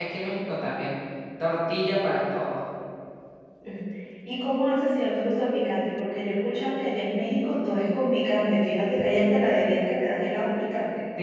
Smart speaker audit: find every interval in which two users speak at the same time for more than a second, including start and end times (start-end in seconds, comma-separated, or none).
none